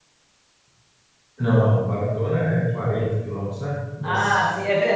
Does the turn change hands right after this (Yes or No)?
Yes